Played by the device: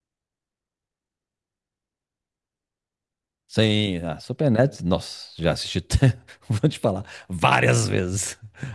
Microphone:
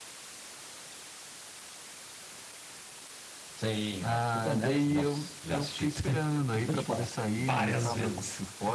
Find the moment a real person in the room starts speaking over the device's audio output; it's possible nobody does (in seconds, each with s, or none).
4.0 s